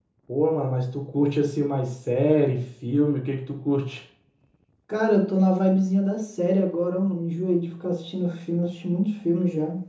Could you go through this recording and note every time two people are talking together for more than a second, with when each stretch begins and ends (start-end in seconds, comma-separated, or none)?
none